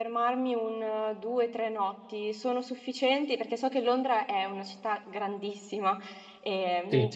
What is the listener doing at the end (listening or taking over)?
listening